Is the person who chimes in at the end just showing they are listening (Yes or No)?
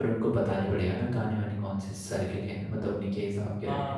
No